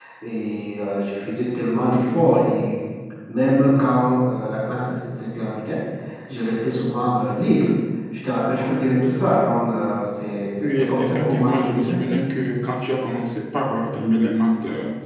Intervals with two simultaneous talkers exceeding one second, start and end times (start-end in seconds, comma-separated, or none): 10.6-12.0